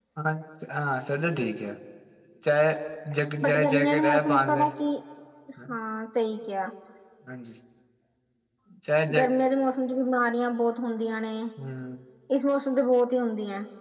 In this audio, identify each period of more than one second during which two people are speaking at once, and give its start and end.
3.4-4.7

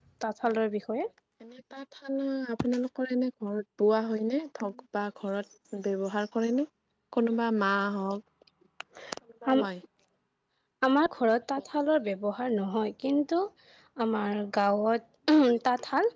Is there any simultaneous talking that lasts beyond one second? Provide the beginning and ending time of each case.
none

